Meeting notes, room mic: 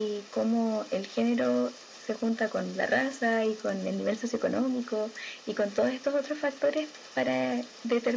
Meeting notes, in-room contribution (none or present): none